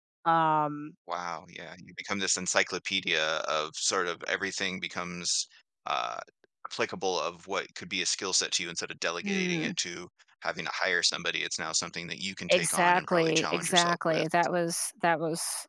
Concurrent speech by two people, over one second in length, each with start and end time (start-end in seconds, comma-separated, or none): 12.5-14.3